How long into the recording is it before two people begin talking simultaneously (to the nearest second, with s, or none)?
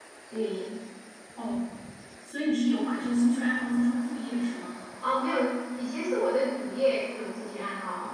none